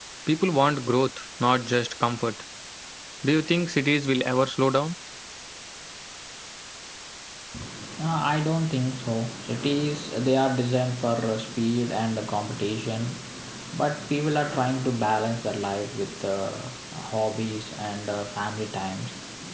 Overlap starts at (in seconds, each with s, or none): none